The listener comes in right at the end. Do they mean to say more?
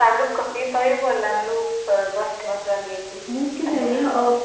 Yes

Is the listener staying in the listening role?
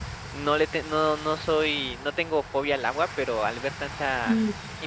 Yes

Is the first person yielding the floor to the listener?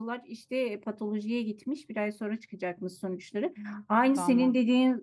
No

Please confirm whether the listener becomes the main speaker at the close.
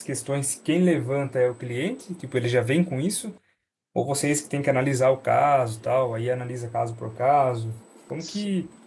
Yes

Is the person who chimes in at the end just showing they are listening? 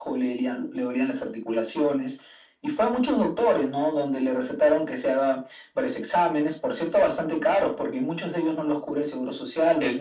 No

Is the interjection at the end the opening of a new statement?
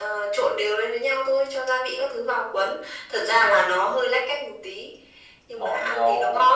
Yes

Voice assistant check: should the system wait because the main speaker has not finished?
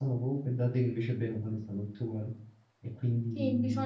No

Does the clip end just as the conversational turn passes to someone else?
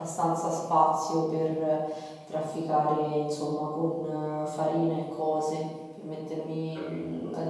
No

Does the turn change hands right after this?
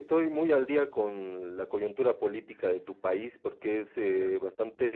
No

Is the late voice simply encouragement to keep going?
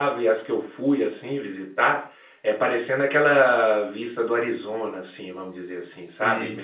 Yes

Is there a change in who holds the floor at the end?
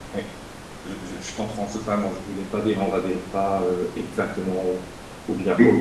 No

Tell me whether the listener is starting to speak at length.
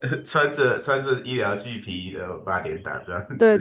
Yes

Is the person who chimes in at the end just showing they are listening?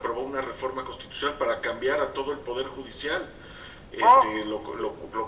Yes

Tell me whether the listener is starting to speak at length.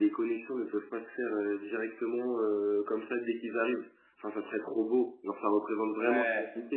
No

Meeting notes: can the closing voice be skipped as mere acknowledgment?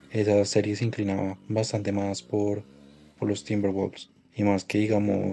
Yes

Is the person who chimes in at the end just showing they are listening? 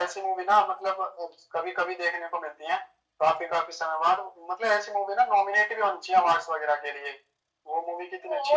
No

